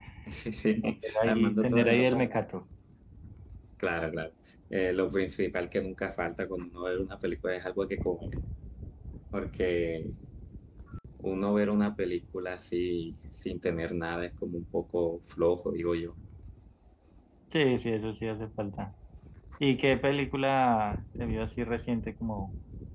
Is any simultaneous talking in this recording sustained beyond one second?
Yes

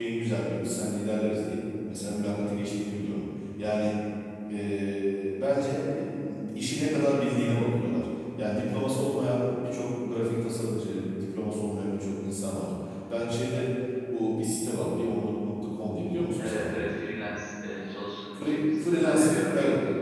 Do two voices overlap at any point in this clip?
Yes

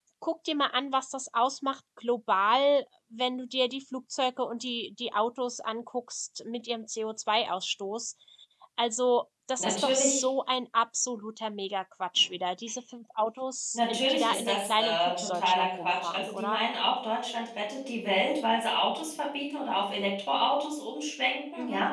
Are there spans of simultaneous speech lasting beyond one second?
Yes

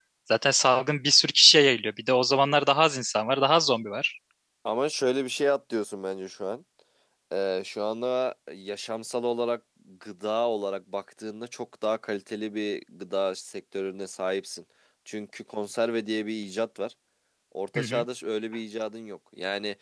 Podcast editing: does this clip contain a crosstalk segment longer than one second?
No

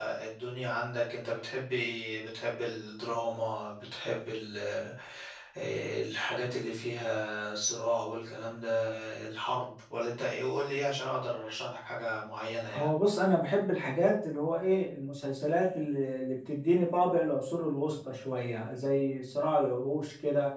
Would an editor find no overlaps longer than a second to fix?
Yes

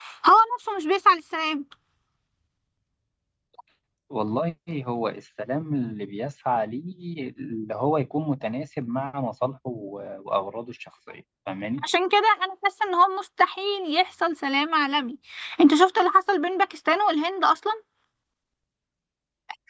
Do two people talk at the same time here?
No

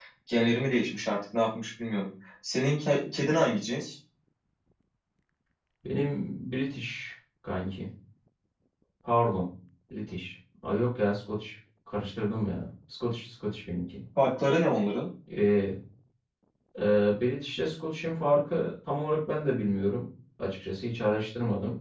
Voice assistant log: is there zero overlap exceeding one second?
Yes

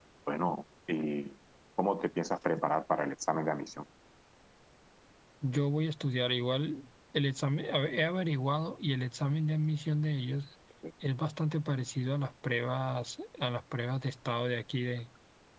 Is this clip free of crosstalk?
Yes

